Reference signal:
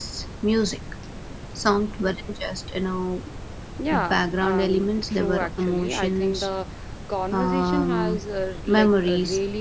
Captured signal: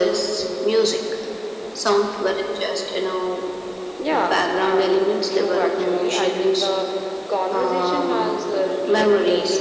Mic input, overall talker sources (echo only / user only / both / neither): echo only